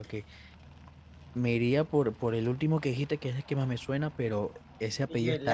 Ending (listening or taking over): listening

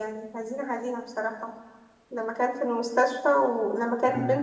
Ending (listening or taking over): listening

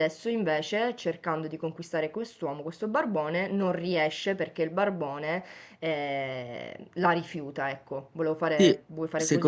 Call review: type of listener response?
taking over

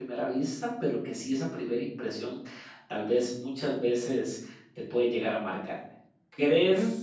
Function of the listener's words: listening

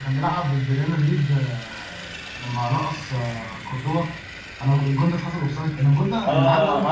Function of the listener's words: taking over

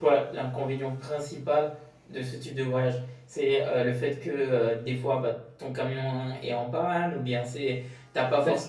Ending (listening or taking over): listening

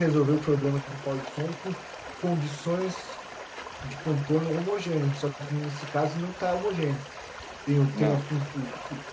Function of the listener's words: listening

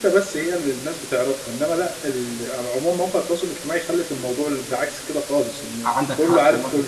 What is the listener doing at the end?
taking over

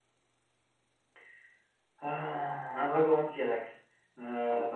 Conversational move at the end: taking over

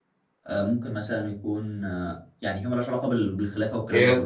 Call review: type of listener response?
taking over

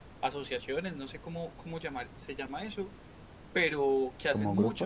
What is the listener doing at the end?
listening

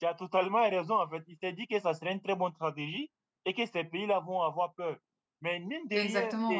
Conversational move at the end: listening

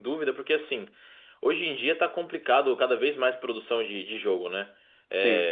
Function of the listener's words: listening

